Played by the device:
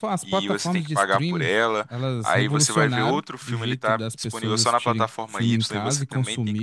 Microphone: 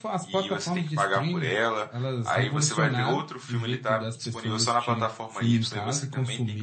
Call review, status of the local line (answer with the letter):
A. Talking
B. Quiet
B